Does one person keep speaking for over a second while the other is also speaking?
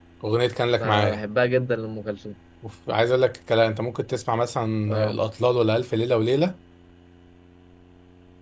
No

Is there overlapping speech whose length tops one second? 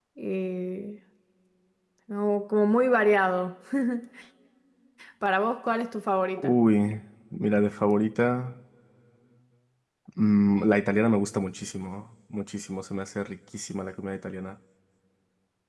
No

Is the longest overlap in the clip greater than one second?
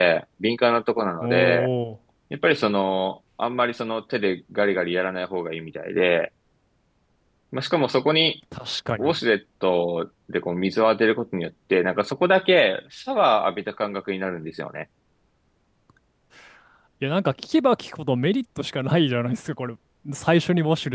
No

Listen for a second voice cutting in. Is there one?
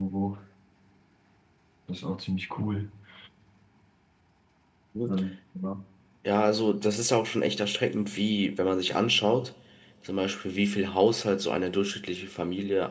No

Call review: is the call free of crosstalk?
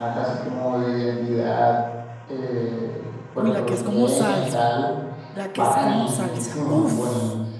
No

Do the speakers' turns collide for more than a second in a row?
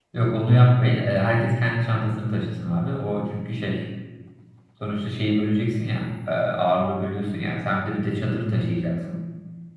No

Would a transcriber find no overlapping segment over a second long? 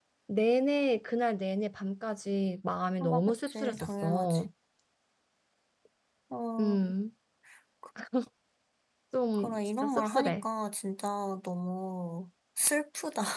No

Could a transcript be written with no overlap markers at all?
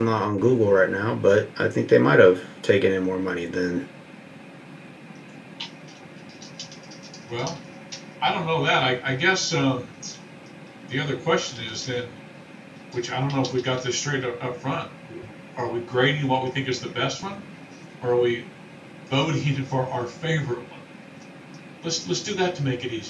Yes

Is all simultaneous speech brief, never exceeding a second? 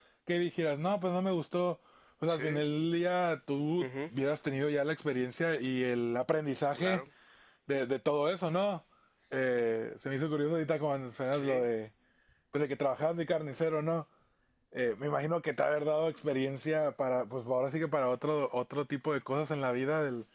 Yes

